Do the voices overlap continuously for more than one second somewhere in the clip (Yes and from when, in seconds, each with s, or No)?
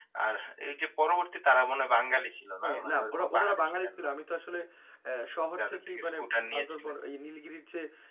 Yes, from 2.6 s